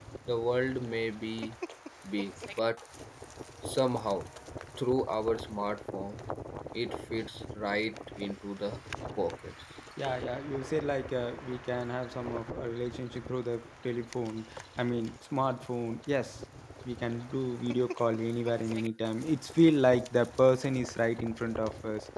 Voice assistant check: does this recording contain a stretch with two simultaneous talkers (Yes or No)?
No